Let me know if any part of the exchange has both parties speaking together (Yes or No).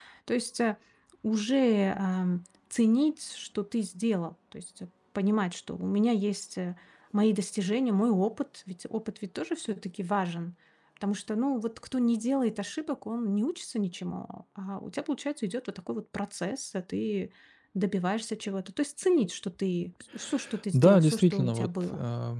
Yes